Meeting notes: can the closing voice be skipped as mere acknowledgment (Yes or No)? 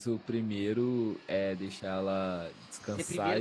No